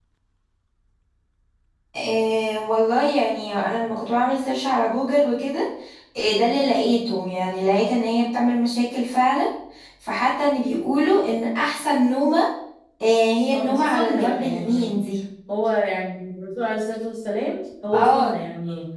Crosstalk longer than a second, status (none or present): present